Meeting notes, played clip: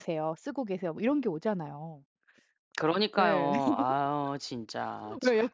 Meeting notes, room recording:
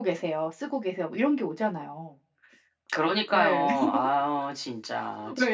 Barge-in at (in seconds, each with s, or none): none